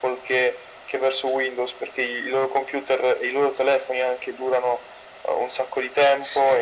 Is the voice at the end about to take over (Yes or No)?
No